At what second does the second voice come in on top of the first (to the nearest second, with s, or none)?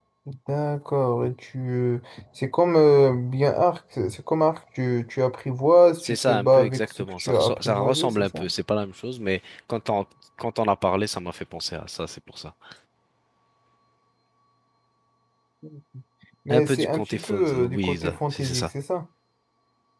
6 s